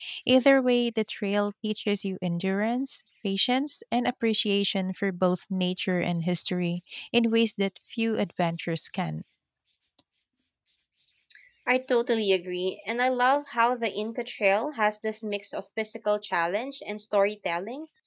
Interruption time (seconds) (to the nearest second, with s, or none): none